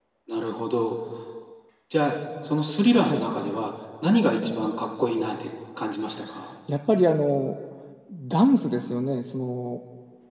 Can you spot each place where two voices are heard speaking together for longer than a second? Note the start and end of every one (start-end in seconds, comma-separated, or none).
none